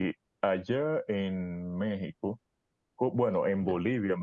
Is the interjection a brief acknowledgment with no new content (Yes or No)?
Yes